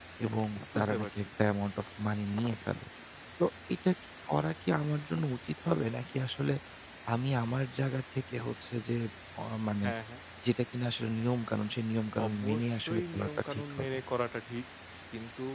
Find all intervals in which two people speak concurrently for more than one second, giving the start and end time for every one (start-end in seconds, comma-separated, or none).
12.2-13.9